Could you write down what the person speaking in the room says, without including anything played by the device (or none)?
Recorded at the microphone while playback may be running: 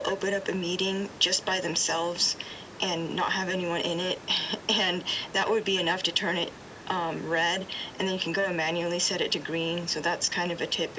none